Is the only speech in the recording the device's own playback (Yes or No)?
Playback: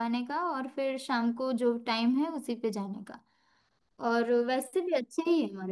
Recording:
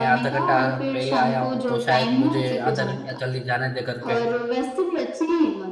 No